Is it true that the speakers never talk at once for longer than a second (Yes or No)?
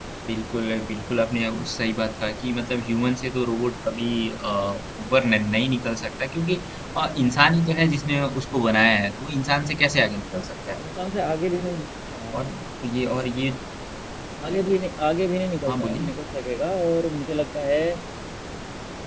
Yes